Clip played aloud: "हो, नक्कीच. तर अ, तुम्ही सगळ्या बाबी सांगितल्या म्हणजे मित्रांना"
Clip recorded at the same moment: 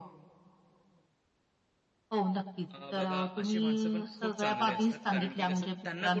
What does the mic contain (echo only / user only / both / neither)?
both